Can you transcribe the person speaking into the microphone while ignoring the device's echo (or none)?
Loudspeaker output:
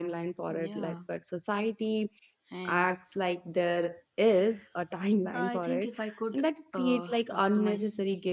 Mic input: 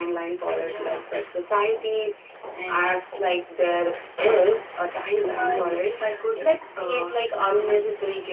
Mm.